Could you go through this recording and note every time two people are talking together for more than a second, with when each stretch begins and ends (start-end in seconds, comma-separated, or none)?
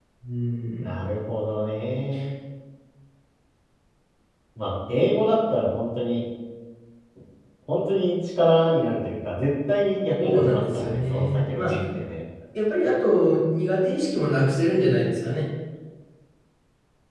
10.2-11.7